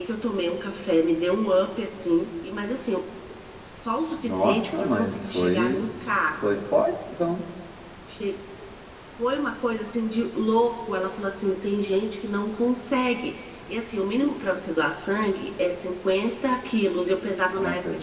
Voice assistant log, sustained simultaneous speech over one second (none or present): present